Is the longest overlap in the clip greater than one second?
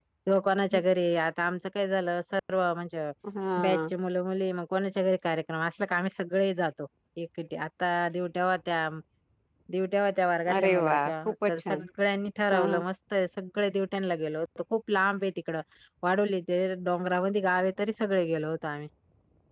Yes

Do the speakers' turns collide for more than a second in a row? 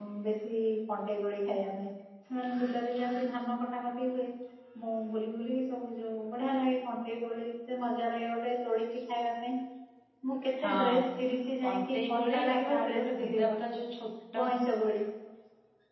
Yes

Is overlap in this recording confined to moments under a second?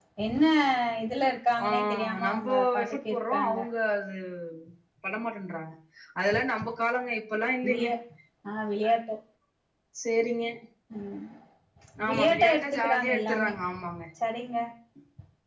No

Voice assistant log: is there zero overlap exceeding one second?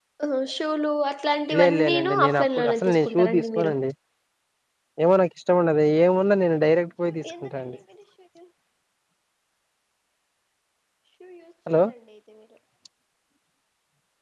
No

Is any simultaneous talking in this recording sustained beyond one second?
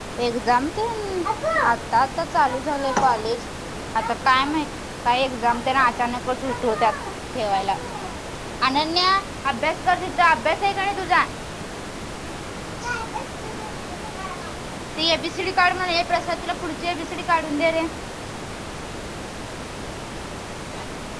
No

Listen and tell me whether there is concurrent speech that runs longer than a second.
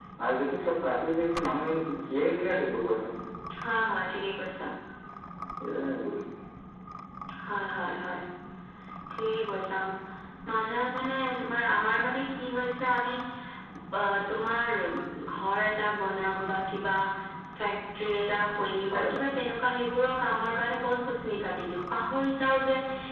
No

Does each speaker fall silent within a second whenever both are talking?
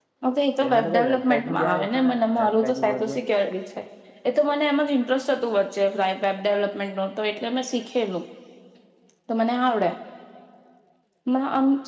No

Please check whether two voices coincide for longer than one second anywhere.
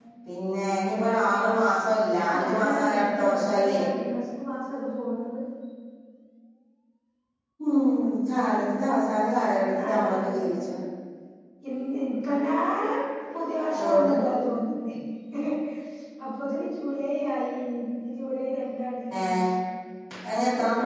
Yes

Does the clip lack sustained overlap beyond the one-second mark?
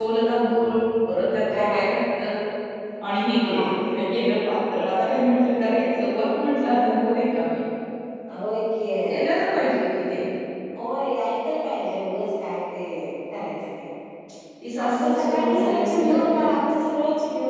No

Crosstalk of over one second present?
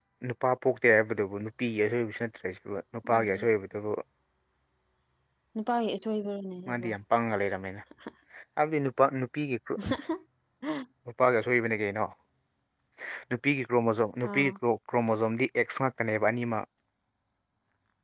No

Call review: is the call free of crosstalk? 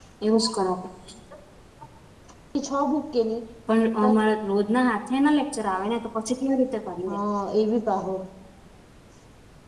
Yes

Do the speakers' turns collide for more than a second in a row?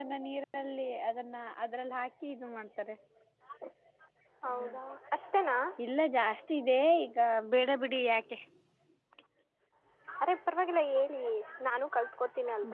No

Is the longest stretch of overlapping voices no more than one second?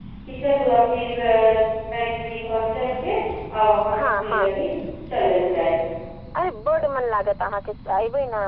Yes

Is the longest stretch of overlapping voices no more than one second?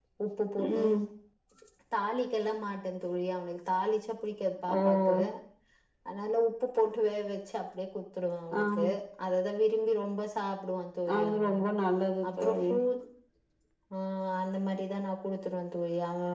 Yes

